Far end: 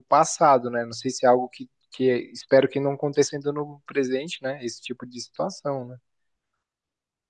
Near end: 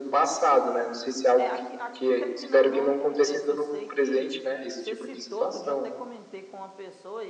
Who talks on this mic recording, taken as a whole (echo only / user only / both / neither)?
both